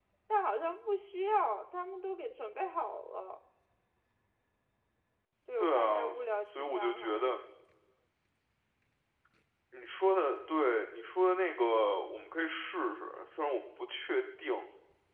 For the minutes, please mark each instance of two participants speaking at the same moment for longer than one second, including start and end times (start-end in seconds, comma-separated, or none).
5.6-7.2